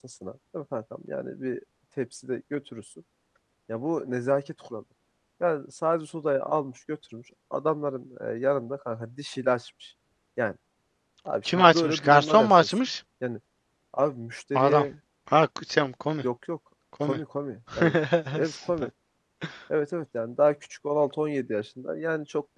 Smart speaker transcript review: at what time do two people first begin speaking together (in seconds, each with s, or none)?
11.4 s